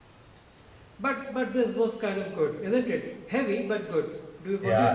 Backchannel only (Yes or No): No